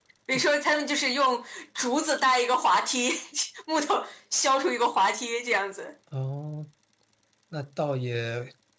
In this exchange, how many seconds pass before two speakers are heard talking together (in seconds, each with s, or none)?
none